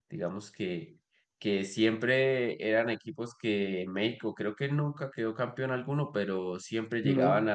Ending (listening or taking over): listening